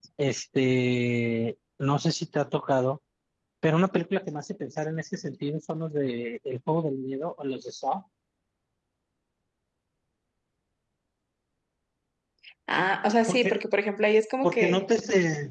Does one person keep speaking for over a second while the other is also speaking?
No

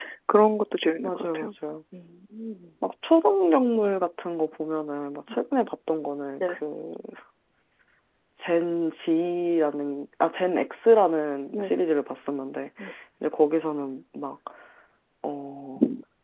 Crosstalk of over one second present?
No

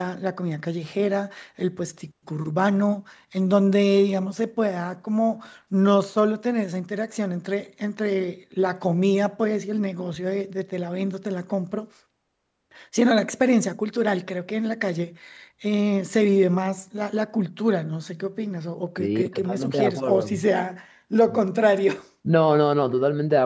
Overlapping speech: Yes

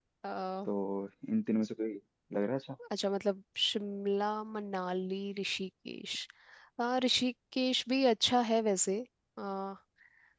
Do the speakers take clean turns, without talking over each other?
Yes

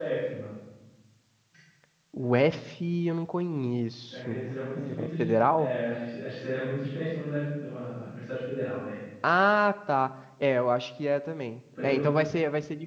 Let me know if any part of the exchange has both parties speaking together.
Yes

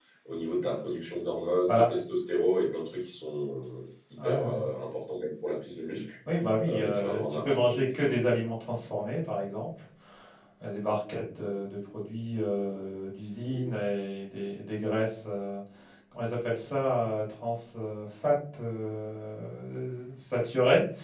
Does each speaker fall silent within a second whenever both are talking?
No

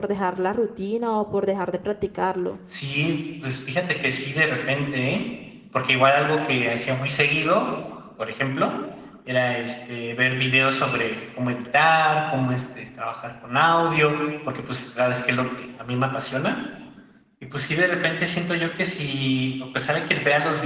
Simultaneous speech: No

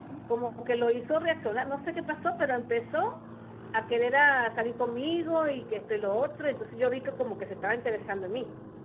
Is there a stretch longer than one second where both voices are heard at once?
No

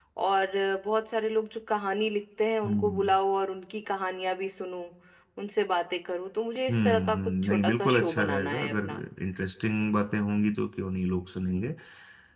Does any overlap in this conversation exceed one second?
Yes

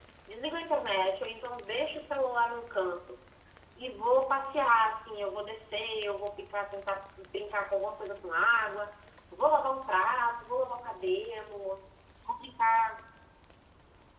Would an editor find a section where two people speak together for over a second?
No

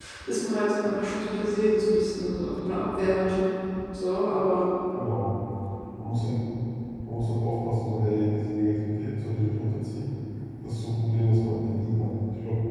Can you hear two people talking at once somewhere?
No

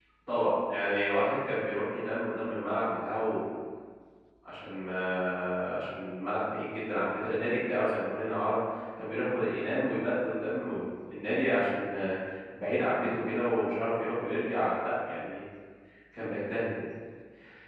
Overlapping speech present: No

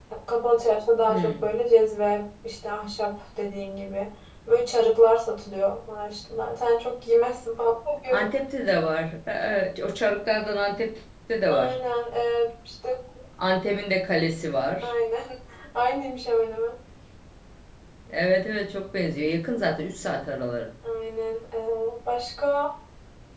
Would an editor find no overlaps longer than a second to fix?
Yes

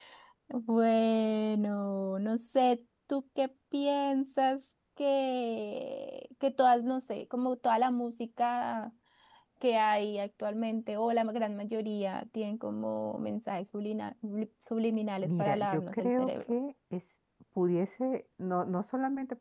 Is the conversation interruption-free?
No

